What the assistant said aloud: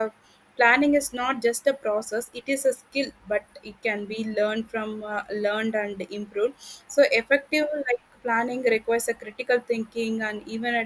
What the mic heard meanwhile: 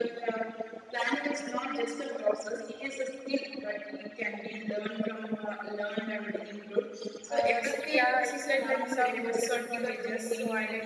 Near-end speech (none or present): present